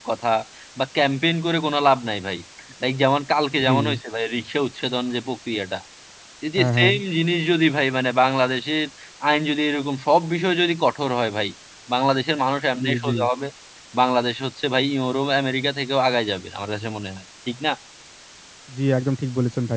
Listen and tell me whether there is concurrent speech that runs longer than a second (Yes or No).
No